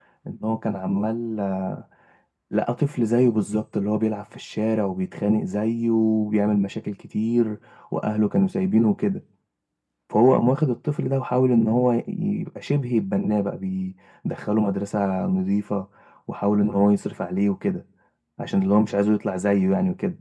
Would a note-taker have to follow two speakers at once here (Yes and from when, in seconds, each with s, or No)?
No